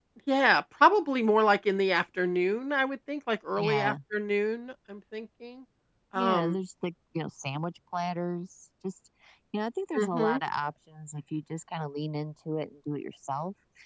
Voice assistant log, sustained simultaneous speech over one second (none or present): none